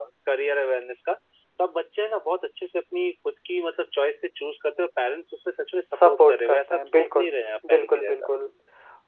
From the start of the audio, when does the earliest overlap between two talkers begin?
5.9 s

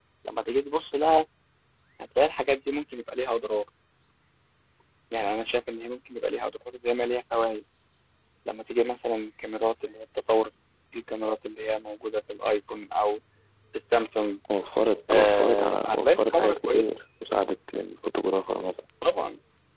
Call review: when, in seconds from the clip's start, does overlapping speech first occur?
15.1 s

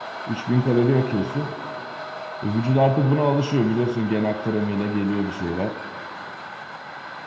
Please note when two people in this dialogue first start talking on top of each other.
none

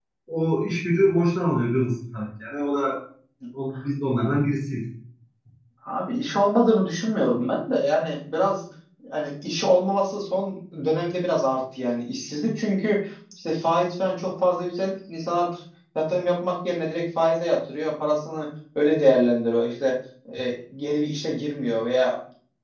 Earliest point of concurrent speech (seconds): none

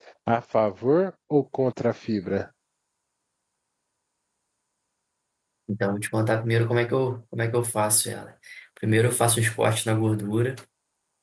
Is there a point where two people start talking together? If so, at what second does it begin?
none

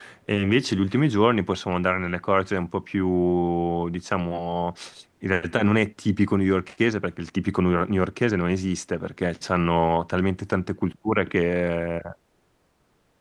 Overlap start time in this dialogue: none

